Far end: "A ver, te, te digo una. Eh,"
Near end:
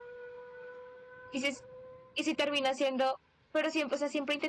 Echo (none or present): none